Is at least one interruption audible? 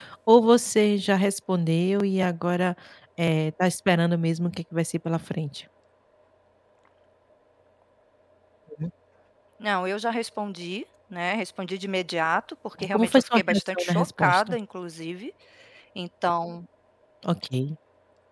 Yes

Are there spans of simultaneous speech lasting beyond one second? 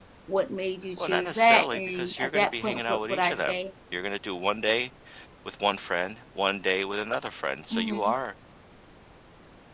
Yes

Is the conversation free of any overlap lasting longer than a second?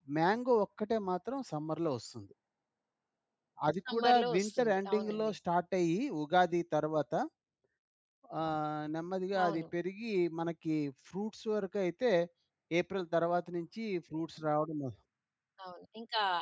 No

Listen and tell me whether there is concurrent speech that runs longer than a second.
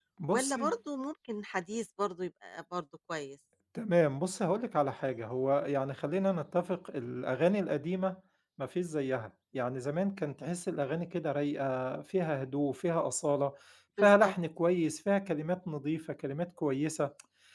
No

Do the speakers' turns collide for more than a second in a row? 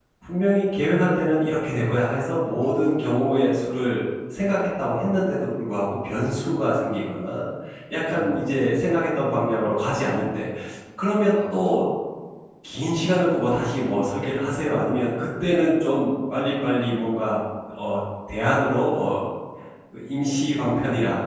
No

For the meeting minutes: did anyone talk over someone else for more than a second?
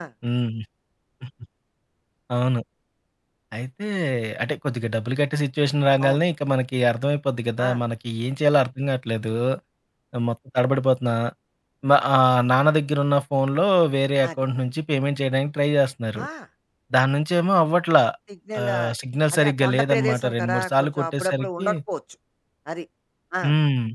Yes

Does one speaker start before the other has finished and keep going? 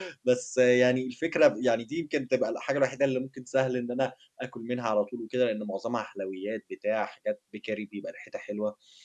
No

